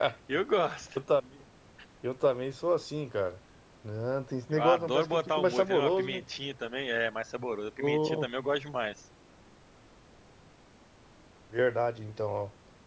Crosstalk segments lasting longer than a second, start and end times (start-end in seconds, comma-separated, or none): 4.5-6.2